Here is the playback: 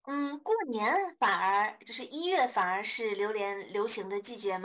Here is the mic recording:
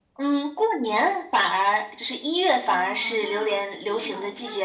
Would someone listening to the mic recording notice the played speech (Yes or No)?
Yes